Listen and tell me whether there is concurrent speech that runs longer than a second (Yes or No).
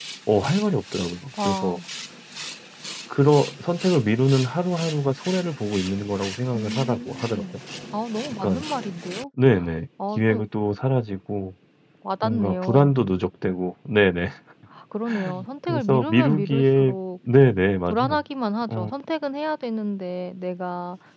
Yes